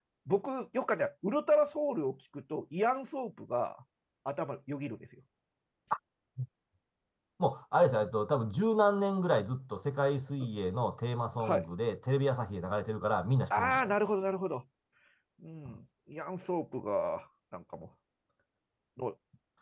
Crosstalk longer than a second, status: none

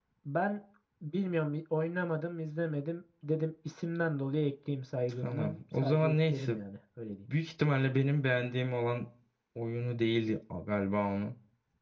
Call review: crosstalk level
present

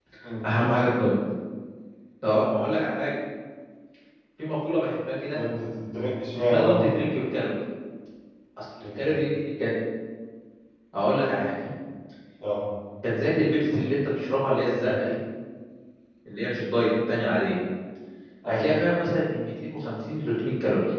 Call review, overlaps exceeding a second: none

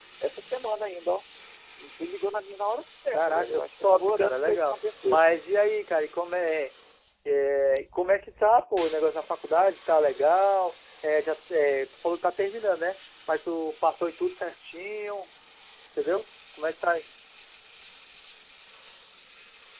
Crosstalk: present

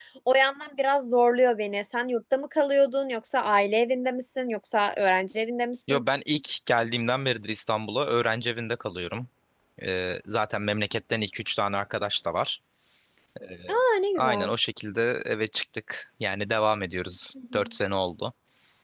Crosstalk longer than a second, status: none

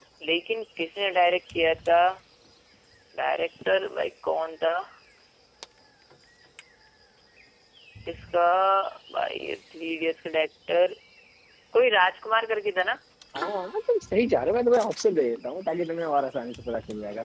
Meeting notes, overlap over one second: none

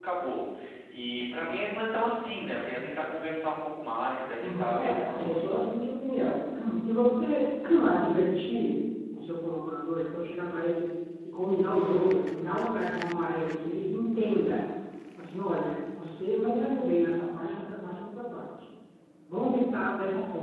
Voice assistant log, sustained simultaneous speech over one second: present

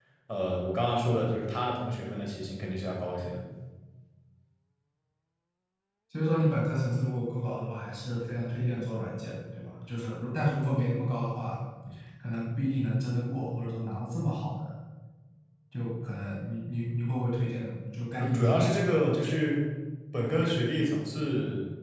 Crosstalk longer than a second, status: none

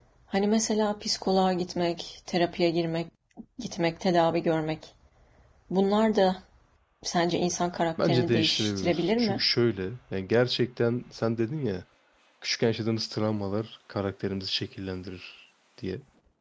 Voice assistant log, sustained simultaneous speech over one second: present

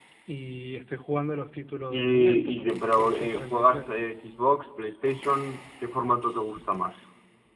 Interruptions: present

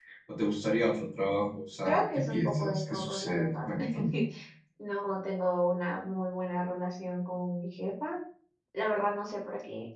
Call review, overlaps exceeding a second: present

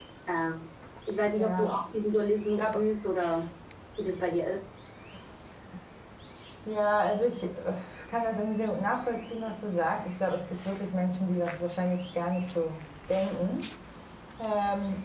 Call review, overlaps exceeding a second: none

